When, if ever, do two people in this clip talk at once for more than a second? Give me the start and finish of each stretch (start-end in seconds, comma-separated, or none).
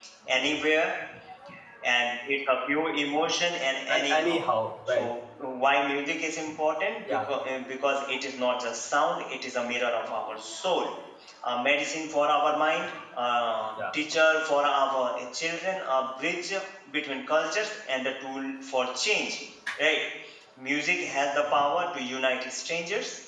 none